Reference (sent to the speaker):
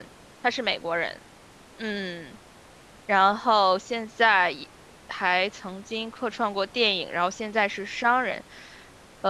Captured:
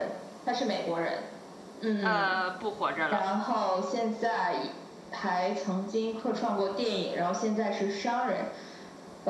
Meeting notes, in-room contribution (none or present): present